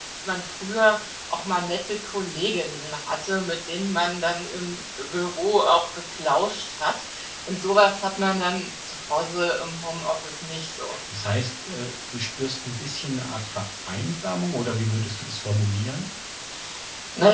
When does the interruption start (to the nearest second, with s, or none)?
none